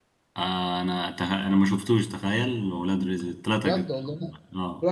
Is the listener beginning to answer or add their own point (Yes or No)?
Yes